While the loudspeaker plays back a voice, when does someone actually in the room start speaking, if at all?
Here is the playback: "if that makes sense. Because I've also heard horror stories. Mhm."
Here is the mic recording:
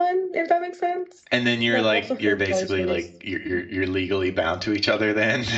1.3 s

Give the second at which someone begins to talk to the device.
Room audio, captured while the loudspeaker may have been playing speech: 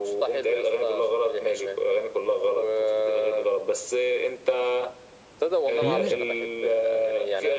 5.8 s

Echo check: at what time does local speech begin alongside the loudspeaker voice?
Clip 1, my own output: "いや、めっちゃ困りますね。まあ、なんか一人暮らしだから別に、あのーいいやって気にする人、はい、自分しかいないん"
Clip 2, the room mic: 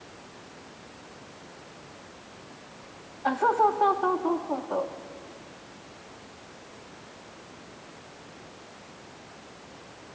3.2 s

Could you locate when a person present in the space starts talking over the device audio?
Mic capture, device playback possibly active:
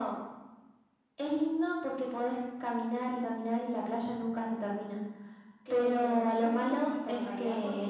5.6 s

